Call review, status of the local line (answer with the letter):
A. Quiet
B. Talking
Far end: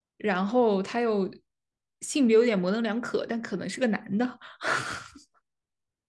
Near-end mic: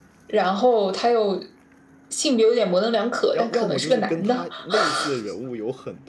B